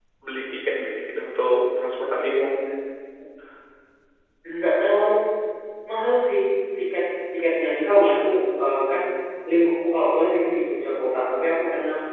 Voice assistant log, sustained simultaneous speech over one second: none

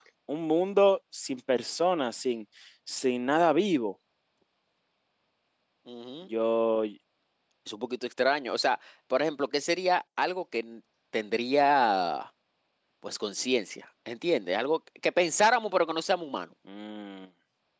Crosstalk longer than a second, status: none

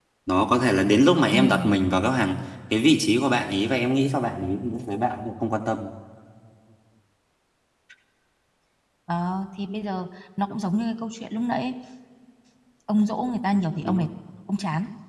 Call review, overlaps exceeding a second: none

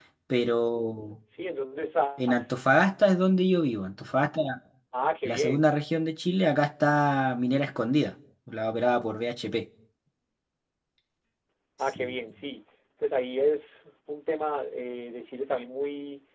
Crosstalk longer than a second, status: none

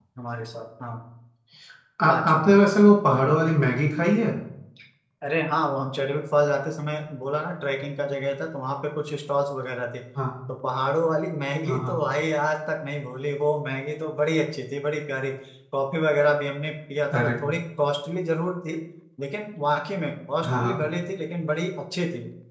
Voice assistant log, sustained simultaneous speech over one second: none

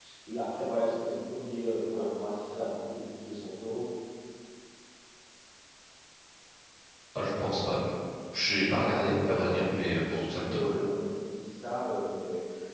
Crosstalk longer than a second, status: present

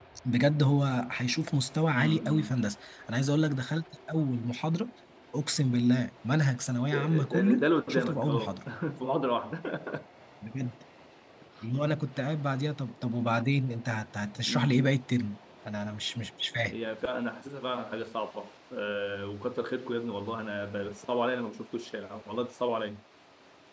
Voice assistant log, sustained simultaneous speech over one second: present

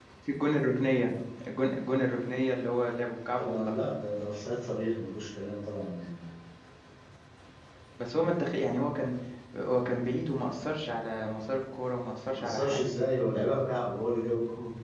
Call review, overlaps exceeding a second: none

